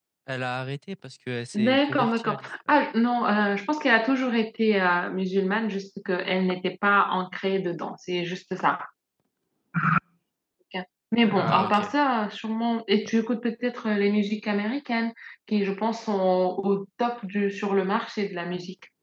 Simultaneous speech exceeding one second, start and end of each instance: 1.6-2.8

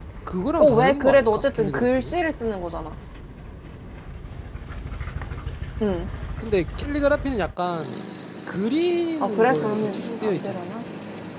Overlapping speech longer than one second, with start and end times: 0.6-2.1, 9.2-10.7

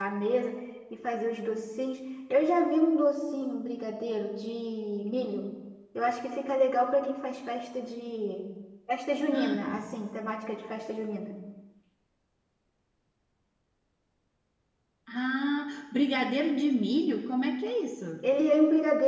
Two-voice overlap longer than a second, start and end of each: none

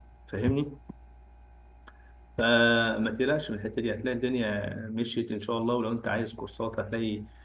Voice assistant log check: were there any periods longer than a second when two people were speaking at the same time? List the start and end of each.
none

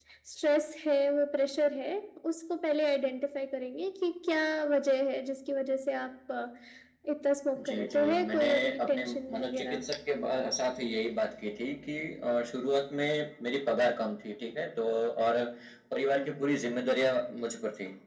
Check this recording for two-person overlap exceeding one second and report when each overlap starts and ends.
7.7-9.8

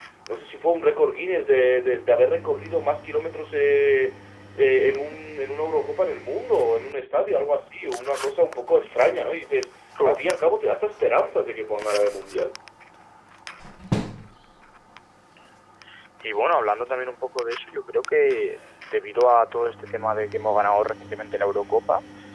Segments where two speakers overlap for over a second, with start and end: none

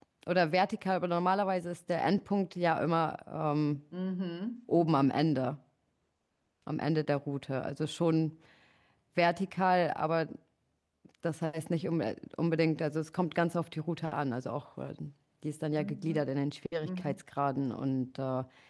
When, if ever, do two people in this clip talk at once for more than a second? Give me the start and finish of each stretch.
none

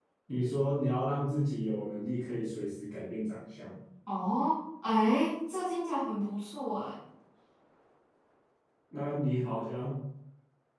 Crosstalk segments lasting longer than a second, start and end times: none

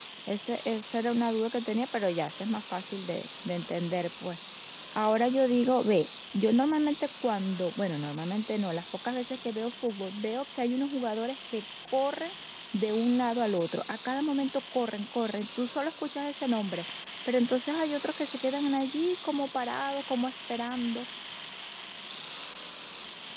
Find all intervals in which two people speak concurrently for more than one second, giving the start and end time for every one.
none

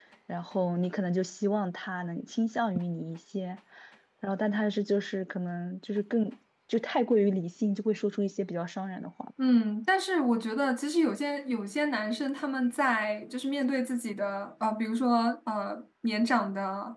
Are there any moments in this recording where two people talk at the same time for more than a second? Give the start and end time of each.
none

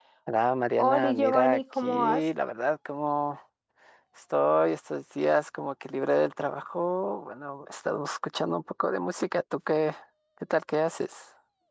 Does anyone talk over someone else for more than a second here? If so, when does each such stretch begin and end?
0.8-2.2

